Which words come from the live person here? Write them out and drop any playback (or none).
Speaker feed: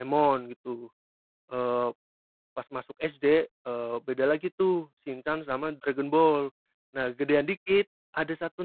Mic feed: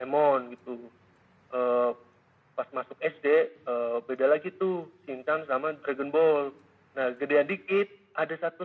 none